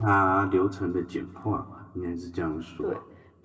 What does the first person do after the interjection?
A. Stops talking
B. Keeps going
A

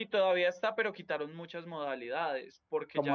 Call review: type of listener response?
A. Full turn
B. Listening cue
A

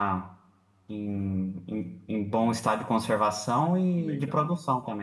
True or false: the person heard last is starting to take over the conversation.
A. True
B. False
A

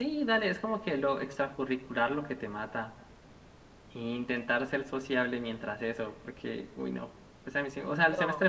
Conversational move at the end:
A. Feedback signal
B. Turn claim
A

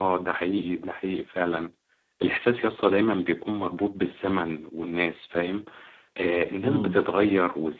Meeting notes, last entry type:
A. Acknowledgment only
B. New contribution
A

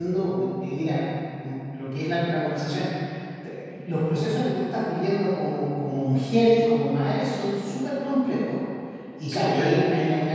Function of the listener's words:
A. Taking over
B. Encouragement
B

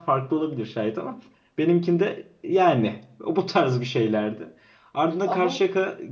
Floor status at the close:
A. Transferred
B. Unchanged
B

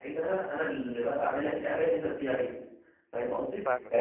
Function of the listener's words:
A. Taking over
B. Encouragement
B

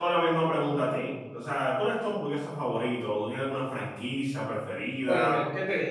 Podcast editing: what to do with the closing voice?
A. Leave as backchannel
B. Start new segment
B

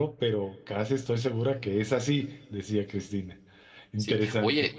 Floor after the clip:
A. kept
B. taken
B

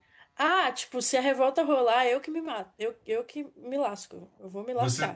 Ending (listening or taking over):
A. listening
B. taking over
B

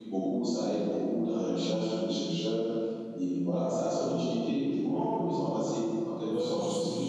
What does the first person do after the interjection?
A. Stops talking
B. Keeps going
A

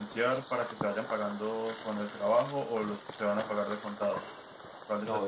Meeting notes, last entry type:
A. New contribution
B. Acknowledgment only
A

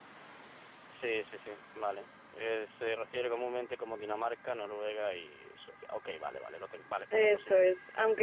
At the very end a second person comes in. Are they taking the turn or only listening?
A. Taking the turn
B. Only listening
A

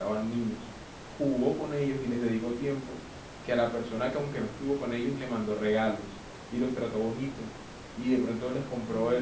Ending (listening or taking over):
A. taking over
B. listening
B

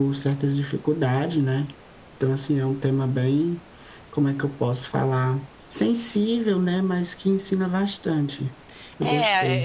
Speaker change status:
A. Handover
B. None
A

